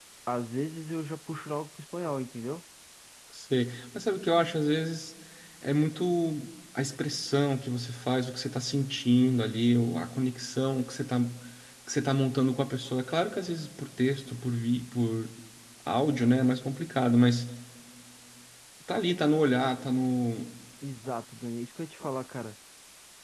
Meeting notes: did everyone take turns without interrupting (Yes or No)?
Yes